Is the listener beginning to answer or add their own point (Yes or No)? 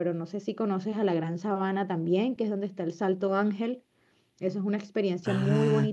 Yes